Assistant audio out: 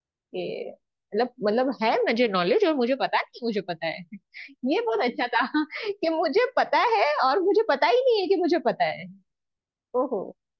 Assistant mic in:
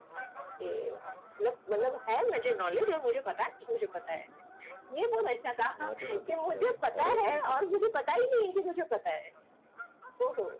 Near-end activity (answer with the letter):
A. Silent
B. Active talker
B